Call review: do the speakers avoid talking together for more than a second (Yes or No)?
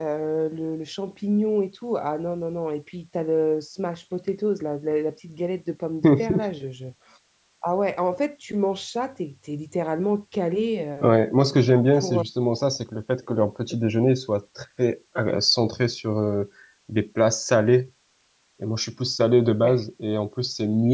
Yes